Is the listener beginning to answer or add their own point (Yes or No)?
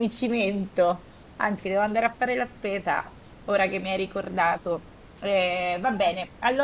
No